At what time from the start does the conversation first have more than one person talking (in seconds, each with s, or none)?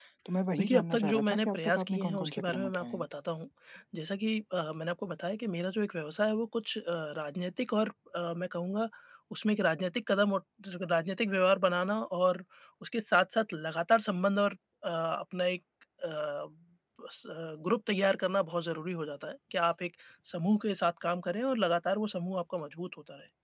0.6 s